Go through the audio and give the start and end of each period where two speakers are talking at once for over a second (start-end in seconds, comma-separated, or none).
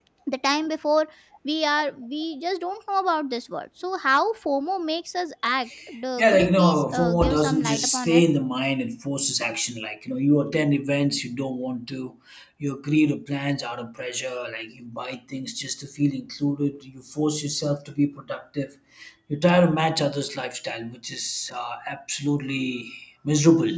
6.2-8.2